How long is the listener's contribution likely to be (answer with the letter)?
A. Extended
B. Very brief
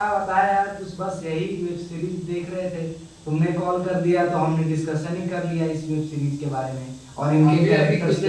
A